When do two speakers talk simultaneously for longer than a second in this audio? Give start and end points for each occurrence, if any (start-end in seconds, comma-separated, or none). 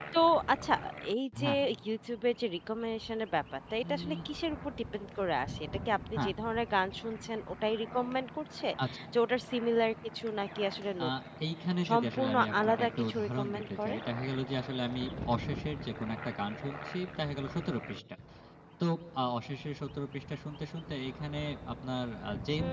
11.9-13.9